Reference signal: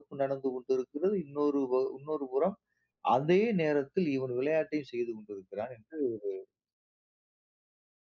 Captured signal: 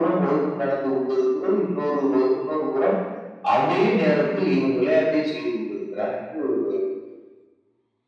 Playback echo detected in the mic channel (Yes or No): Yes